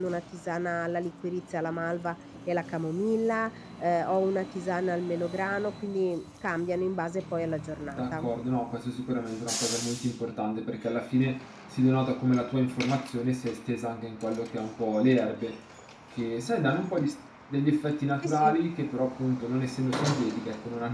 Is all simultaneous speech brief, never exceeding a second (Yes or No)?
Yes